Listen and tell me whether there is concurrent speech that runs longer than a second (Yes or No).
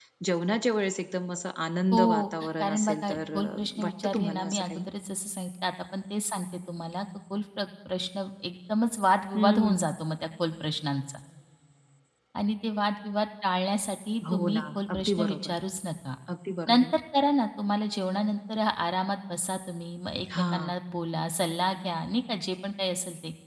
Yes